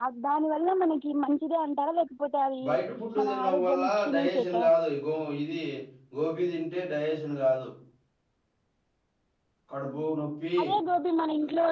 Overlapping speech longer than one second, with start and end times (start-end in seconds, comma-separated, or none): 3.2-4.6